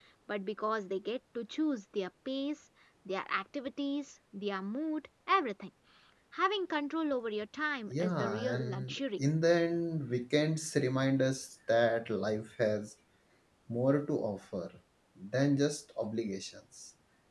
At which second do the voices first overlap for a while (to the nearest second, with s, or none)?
8 s